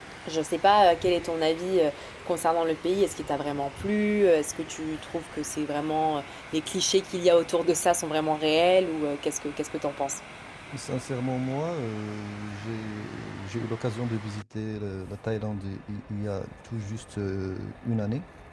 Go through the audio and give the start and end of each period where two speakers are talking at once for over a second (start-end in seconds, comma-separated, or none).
none